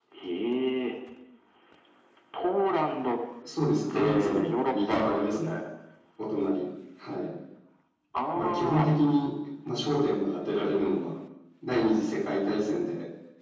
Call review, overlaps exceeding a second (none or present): present